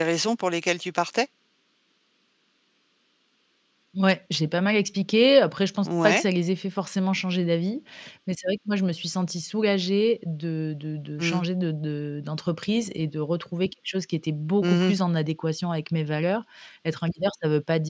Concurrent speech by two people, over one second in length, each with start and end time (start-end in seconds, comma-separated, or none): none